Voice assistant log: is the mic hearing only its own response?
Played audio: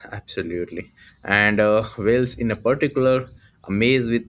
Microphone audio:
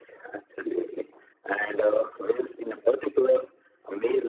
Yes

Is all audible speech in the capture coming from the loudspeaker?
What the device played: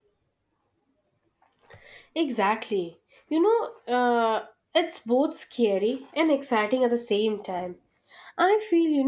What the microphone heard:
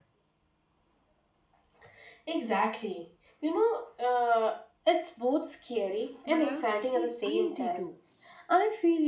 No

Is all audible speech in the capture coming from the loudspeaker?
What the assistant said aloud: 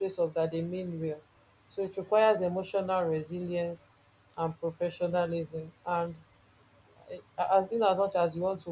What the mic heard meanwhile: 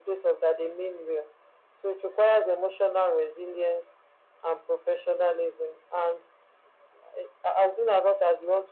Yes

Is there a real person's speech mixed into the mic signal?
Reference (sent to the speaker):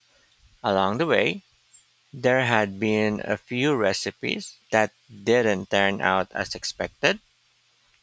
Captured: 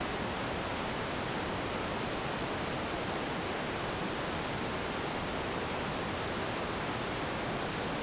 No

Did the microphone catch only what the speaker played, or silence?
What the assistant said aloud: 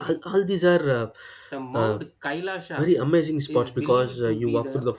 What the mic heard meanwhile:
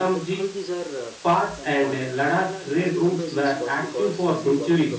No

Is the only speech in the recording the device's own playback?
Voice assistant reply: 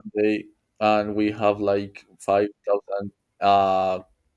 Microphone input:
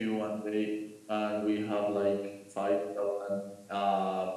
Yes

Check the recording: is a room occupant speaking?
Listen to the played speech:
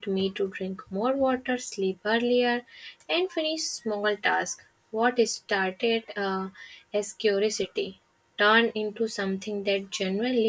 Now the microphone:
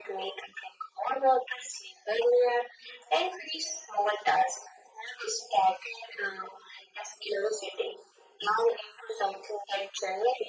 No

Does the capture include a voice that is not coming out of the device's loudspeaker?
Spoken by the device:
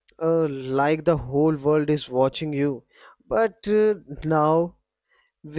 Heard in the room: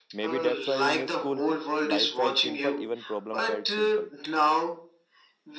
Yes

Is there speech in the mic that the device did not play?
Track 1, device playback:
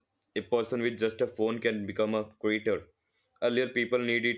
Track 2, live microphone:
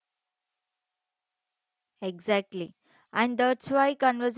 Yes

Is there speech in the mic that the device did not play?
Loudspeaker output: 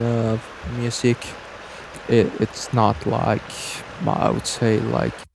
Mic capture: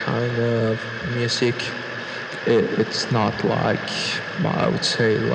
No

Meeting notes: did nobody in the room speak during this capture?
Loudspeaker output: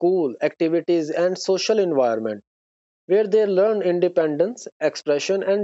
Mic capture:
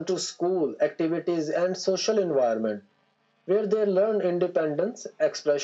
Yes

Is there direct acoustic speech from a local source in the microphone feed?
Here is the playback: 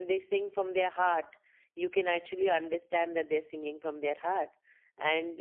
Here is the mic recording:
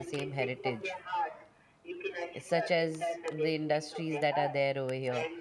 Yes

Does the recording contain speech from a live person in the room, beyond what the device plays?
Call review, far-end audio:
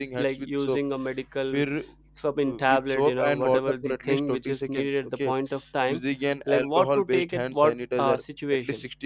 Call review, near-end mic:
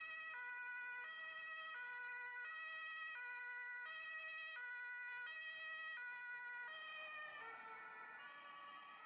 No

